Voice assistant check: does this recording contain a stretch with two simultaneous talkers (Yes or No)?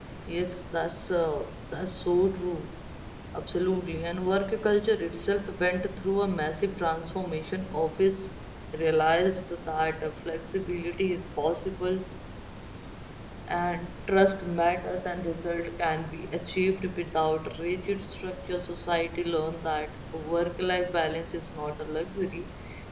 No